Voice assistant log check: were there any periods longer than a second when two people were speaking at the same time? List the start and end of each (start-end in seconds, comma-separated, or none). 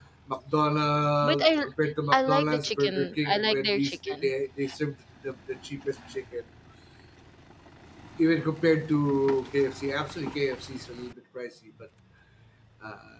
2.1-4.3